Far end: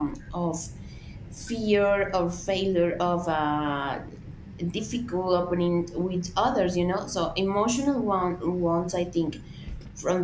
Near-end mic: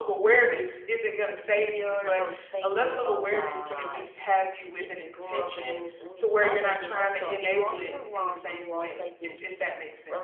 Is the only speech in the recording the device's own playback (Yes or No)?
No